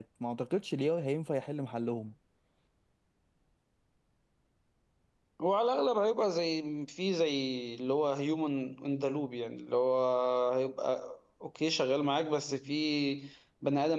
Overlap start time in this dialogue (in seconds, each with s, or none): none